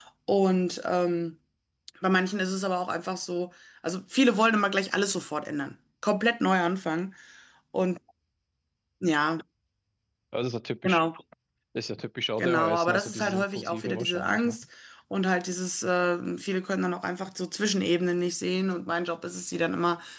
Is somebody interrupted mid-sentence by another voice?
Yes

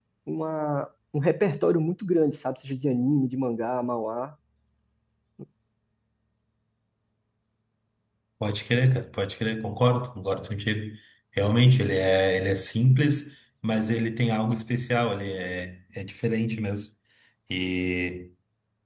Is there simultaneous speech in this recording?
No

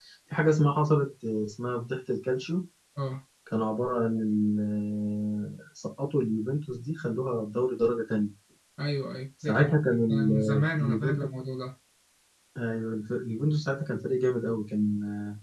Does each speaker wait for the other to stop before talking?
No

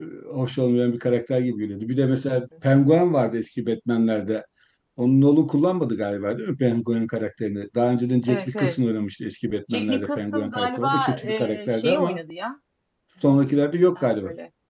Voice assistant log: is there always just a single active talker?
No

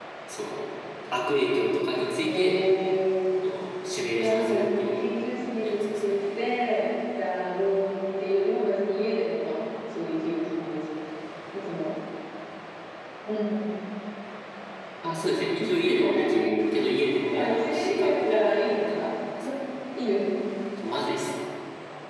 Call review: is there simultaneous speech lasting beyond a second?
Yes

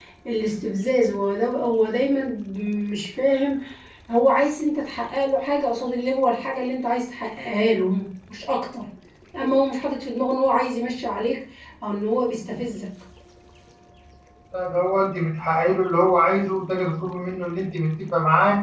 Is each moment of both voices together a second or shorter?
Yes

